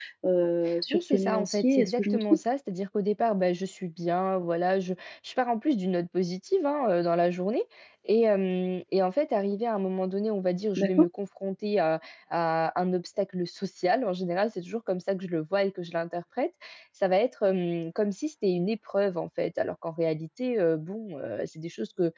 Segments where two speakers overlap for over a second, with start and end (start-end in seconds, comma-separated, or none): 0.9-2.2